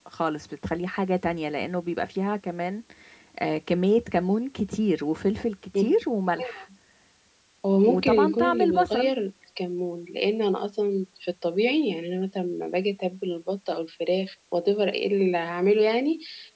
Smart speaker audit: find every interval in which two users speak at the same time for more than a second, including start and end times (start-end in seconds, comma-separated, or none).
7.8-9.1